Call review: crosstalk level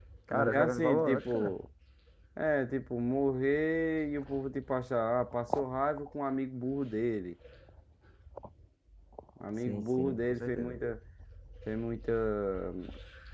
present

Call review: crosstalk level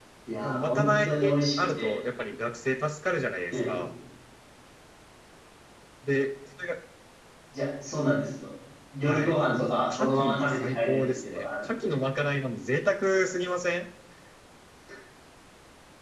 present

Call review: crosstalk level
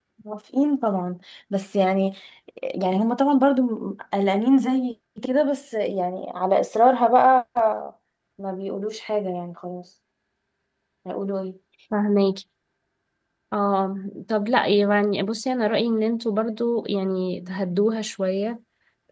none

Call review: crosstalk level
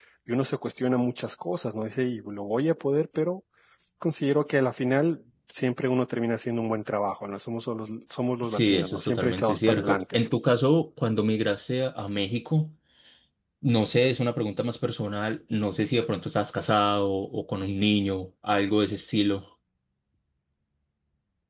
present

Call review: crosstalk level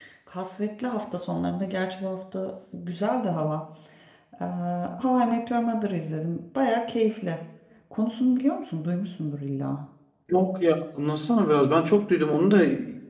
none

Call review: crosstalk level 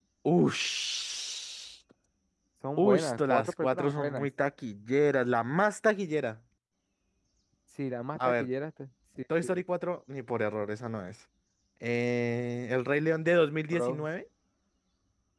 present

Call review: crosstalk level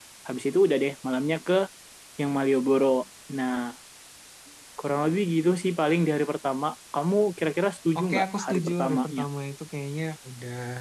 present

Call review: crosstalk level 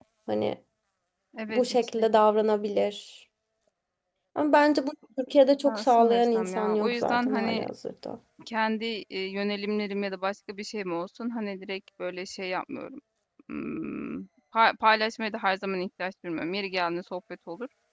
present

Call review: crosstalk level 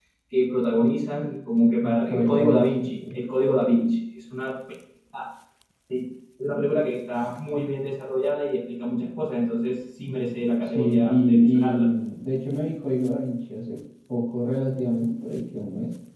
present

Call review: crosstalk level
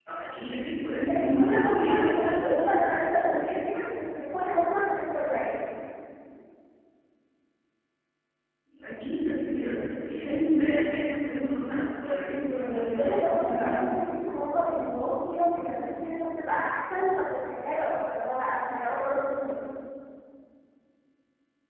present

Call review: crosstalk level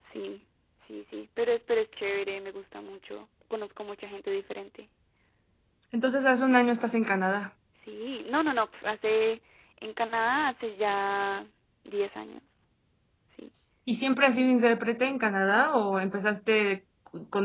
none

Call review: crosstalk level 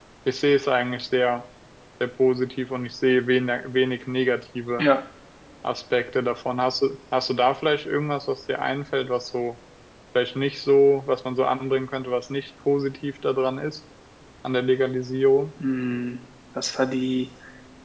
none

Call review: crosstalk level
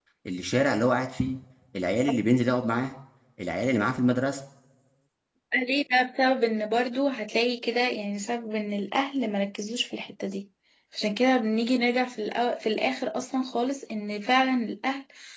none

